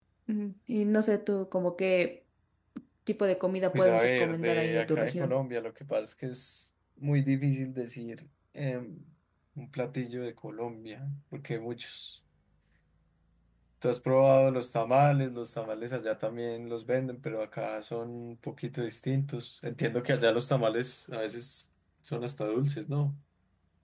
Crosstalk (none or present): present